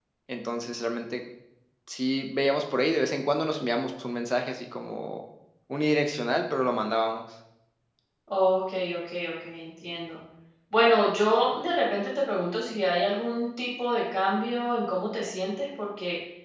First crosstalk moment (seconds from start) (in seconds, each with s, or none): none